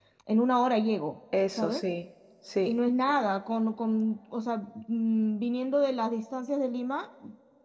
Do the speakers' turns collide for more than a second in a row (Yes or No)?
No